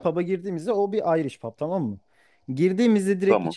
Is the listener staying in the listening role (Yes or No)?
Yes